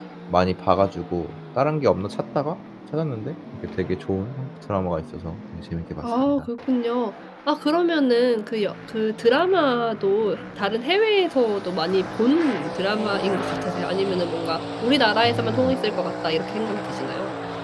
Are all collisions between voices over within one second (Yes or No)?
Yes